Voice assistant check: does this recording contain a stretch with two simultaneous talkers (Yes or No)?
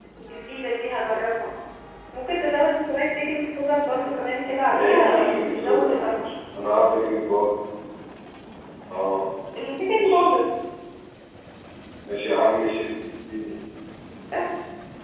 Yes